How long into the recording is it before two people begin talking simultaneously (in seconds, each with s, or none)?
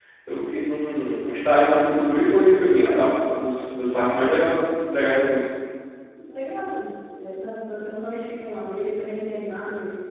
none